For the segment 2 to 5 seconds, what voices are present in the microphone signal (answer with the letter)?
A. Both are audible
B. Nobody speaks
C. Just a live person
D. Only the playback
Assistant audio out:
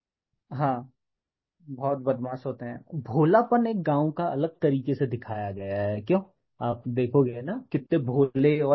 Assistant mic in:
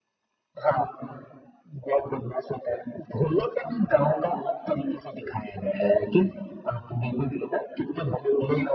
D